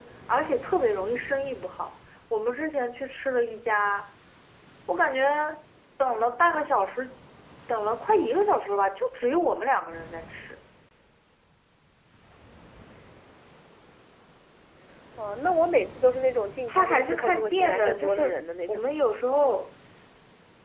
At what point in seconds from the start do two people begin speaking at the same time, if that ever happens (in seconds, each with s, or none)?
16.7 s